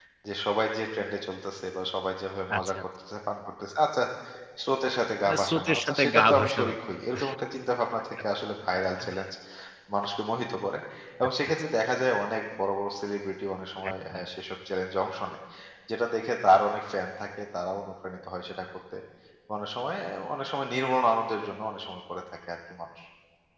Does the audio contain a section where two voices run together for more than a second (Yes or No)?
Yes